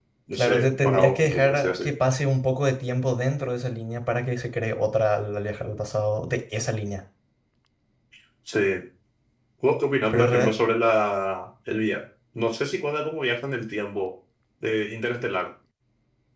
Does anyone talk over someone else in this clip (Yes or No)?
Yes